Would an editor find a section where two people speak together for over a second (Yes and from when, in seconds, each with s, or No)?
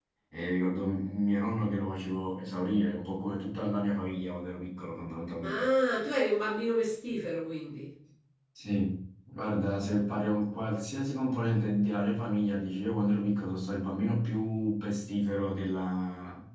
No